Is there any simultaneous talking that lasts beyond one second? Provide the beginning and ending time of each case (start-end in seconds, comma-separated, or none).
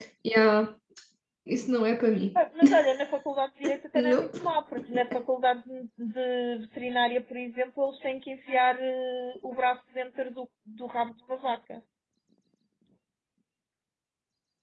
none